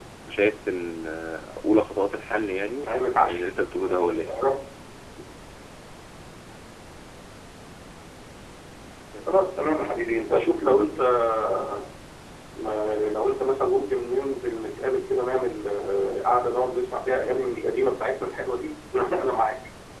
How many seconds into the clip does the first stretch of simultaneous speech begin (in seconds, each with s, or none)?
2.8 s